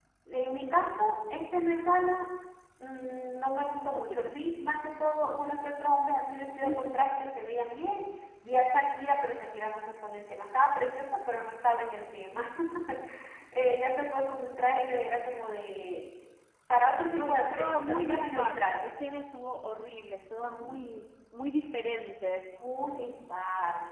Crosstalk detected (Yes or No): Yes